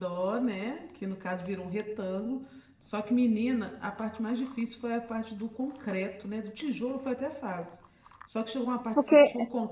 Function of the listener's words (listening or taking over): listening